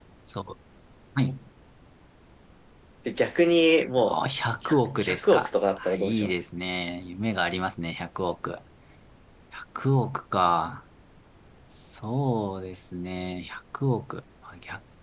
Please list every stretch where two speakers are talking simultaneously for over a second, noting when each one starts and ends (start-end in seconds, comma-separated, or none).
5.0-6.3